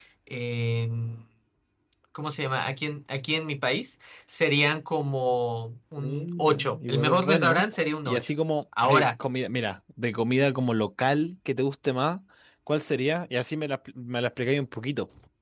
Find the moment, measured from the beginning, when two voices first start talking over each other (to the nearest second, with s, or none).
6 s